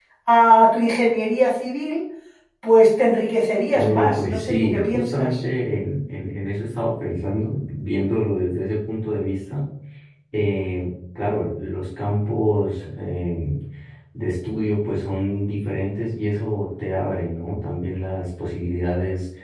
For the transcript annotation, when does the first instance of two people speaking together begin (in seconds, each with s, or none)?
3.7 s